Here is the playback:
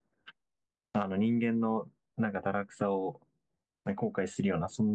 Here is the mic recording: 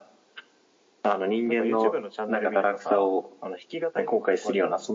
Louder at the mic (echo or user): echo